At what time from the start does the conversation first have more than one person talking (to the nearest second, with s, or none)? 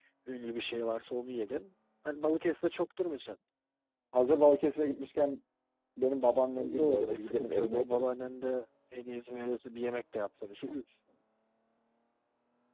7 s